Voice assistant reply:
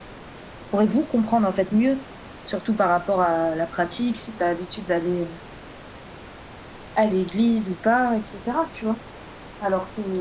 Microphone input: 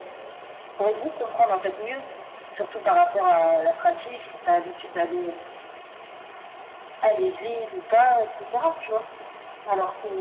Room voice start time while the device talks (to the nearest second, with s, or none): none